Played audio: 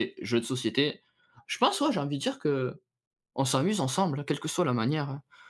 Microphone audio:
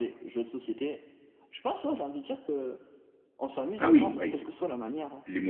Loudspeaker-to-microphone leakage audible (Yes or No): Yes